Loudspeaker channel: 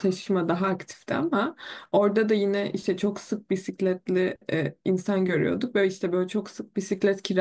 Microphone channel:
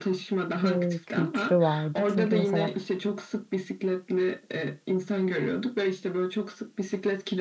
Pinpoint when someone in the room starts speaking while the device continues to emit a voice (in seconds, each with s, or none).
0.6 s